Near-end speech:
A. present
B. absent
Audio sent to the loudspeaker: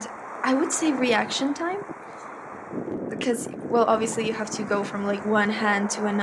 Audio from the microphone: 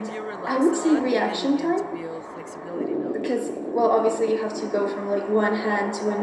A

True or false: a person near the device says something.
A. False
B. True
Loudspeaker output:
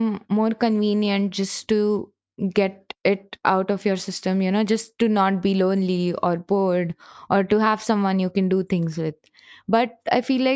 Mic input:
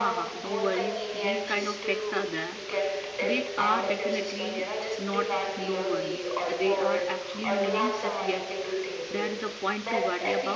B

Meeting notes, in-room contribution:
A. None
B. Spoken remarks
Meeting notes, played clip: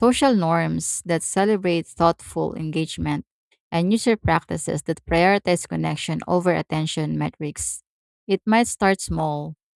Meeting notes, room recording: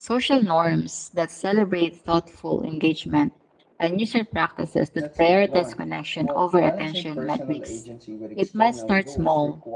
B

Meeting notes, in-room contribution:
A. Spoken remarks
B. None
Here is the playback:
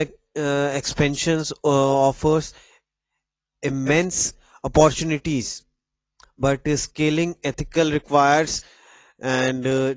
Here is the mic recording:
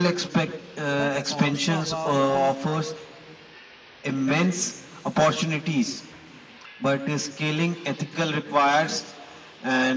A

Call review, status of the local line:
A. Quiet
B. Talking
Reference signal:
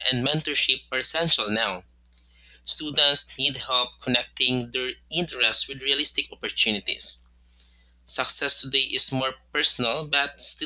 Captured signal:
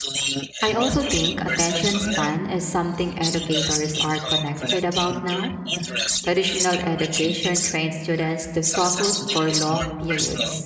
B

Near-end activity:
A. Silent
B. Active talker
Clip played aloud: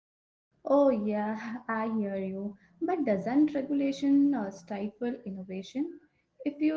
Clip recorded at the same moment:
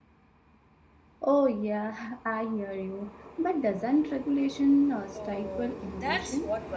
B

